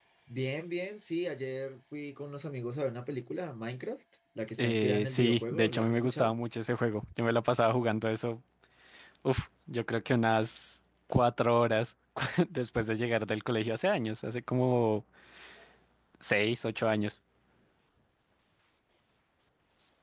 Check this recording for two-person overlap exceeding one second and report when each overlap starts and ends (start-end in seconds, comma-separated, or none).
4.6-6.3